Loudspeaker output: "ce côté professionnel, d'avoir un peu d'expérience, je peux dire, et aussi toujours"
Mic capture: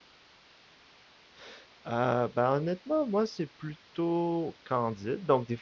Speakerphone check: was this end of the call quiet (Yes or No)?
No